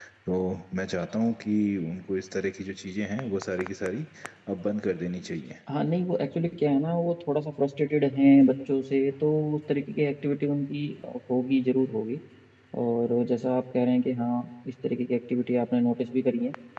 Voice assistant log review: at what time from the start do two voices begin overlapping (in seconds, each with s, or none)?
none